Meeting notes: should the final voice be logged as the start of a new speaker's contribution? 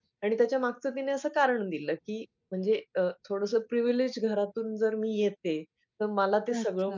No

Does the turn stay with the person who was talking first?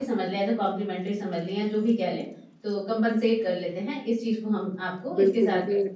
No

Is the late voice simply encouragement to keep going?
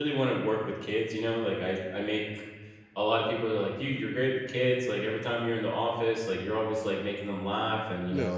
Yes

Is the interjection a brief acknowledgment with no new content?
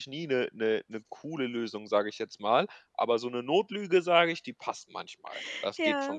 No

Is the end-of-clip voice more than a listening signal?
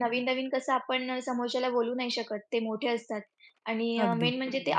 No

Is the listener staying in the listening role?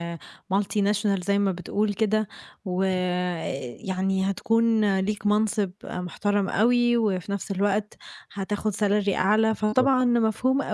Yes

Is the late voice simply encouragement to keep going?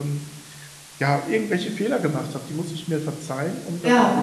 Yes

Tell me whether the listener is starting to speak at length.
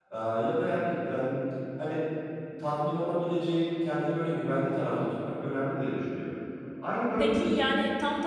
Yes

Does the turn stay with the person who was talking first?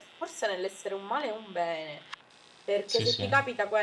Yes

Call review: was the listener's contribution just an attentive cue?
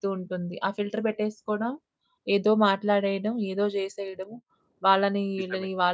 Yes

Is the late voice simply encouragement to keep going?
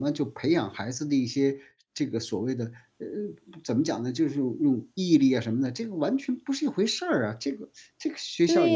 No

